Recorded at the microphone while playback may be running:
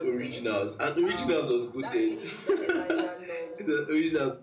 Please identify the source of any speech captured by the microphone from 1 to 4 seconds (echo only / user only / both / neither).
both